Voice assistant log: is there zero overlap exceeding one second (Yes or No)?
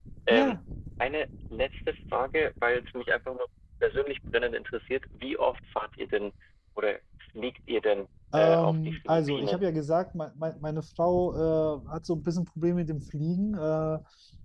No